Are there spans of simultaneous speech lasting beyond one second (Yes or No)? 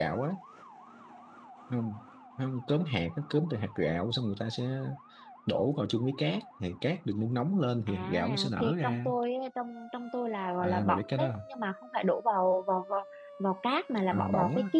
Yes